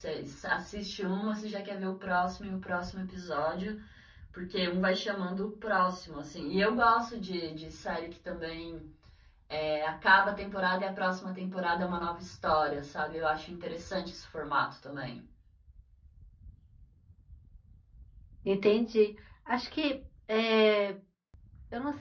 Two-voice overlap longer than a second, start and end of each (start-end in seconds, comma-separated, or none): none